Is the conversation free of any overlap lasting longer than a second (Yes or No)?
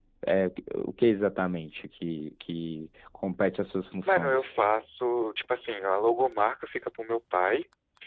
Yes